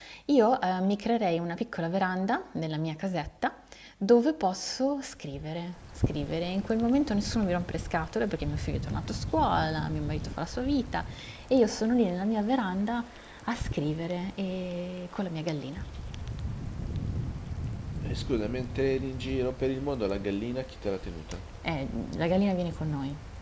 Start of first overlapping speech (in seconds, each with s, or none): none